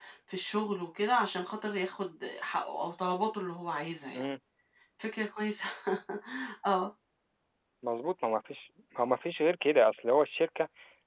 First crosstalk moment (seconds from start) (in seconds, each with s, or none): none